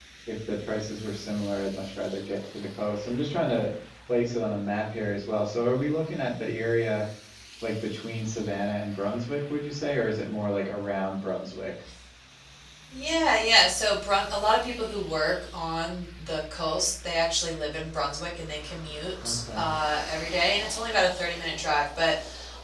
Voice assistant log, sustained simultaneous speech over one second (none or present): none